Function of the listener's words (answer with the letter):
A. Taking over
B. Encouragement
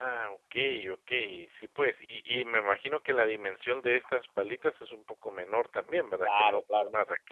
A